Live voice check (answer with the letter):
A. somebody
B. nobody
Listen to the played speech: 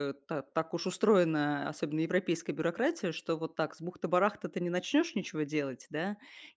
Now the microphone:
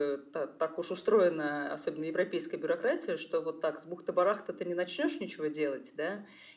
B